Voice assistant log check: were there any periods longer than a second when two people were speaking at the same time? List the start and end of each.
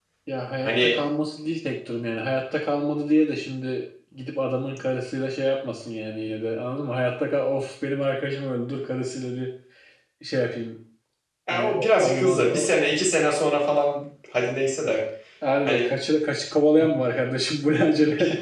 11.5-12.7

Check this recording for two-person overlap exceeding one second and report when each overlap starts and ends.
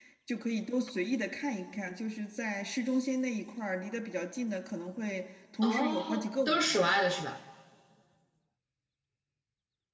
5.6-6.9

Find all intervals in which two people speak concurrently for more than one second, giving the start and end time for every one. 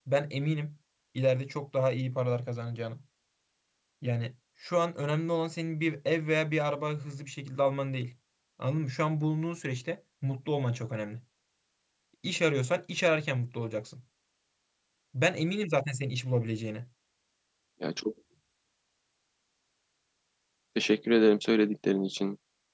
none

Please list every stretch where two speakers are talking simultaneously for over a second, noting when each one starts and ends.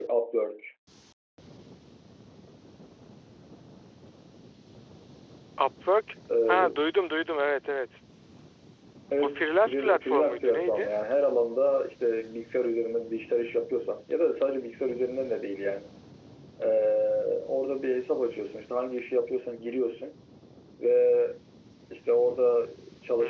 9.2-10.9

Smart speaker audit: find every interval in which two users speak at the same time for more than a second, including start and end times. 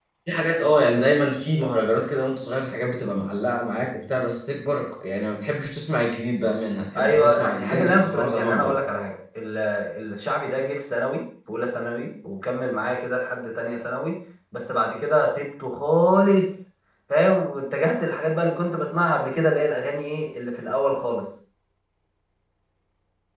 7.0-8.8

